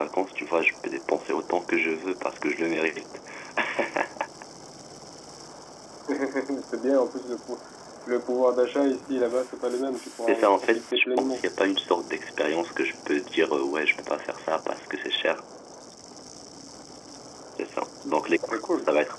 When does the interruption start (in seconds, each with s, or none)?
10.2 s